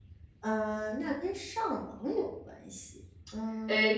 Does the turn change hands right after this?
Yes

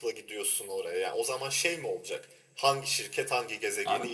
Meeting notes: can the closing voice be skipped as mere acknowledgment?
No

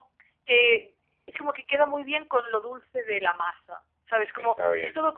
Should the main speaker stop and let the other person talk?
No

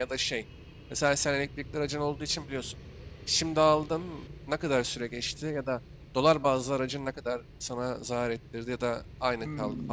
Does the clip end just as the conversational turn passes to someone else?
Yes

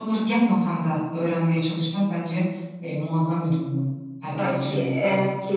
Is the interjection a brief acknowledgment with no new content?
No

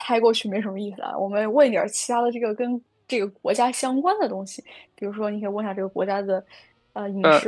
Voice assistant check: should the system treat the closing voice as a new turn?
No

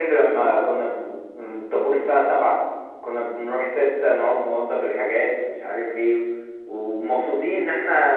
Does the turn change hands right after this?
No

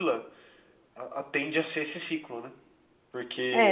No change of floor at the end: No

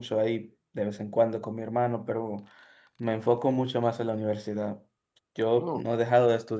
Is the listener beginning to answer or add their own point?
No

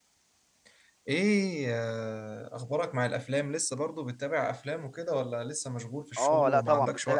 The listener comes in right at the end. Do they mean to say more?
Yes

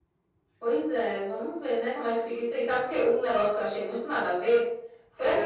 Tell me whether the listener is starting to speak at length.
No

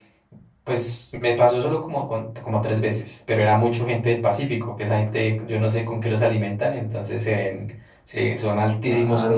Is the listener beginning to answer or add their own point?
No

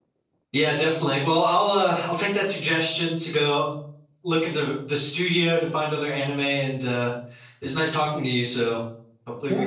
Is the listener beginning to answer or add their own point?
Yes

